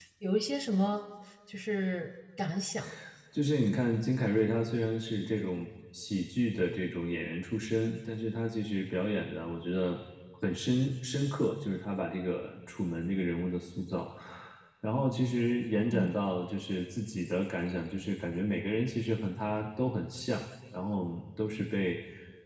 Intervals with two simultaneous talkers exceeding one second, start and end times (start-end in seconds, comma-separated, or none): none